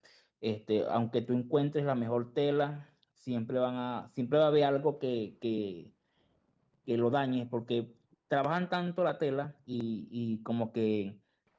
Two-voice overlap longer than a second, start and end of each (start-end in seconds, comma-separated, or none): none